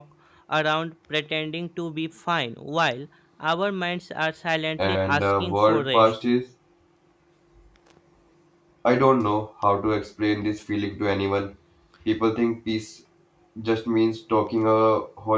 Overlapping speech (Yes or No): Yes